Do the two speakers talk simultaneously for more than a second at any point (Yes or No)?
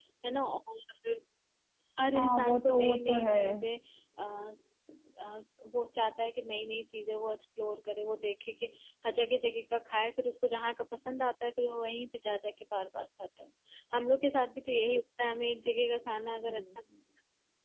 Yes